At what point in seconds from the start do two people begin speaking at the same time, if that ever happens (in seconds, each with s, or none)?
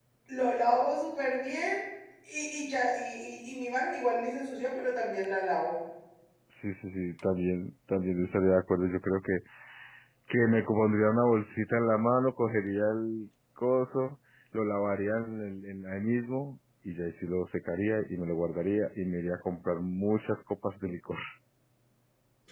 none